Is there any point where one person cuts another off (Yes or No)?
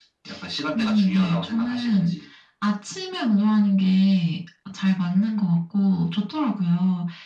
Yes